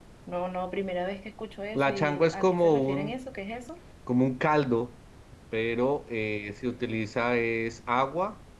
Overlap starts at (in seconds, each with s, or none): 1.7 s